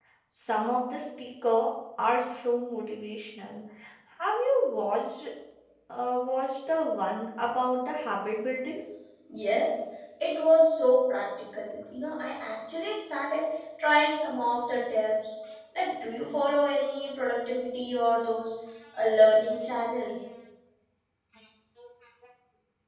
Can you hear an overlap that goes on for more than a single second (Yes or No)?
No